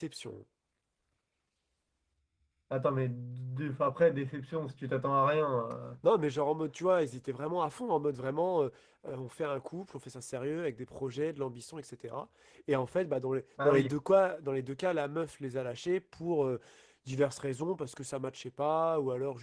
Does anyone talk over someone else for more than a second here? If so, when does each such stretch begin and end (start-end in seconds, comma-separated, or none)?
none